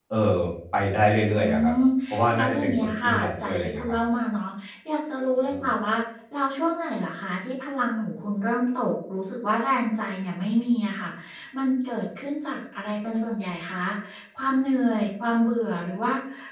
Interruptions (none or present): present